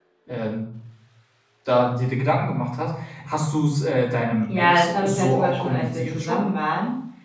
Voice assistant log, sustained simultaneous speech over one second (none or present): present